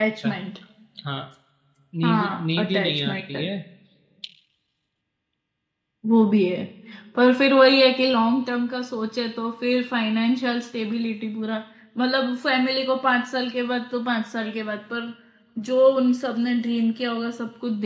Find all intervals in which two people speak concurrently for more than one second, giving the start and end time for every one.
2.0-3.5

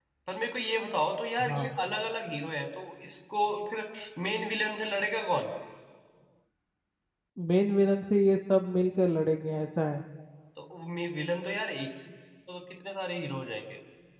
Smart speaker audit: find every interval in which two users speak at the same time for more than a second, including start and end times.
none

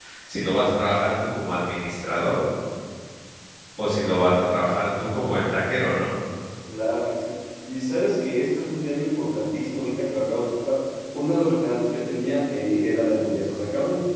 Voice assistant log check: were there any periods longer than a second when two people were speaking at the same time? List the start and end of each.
none

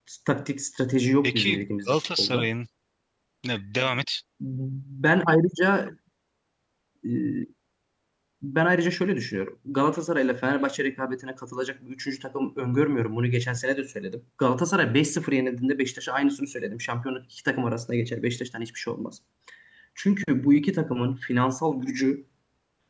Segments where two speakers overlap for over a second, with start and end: 1.2-2.5

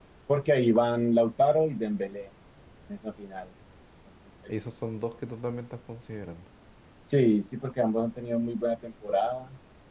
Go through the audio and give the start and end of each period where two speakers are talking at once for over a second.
none

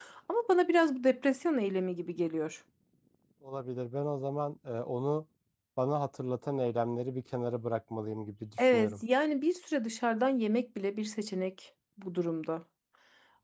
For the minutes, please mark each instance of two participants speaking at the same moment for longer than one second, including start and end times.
none

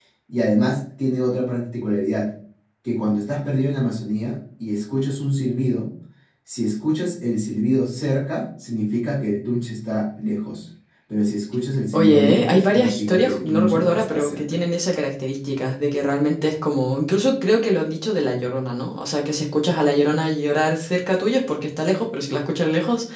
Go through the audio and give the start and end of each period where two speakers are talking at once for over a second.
11.9-14.5

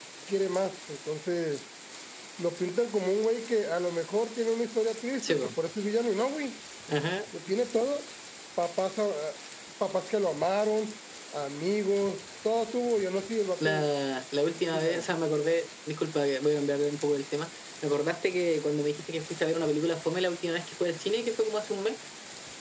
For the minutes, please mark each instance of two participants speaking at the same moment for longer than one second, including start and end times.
none

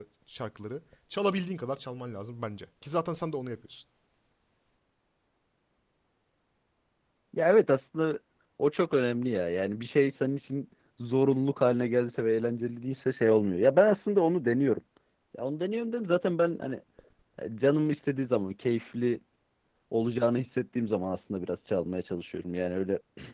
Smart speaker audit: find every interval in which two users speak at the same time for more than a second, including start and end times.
none

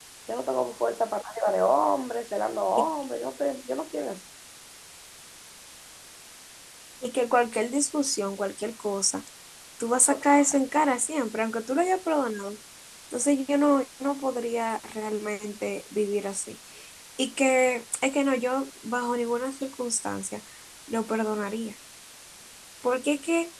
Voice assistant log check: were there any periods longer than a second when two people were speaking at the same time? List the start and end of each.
none

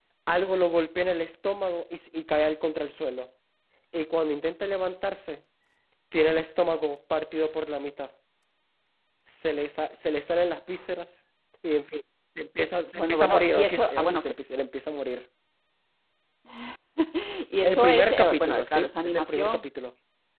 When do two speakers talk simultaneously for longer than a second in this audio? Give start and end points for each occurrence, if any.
13.0-14.3, 17.6-19.6

